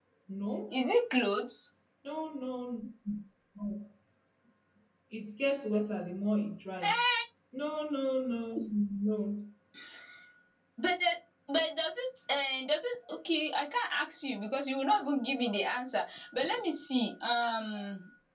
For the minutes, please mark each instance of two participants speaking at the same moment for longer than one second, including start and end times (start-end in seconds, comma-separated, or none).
none